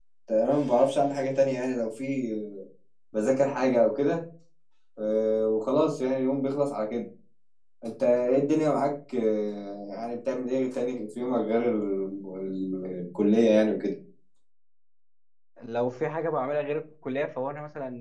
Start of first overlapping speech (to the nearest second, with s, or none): none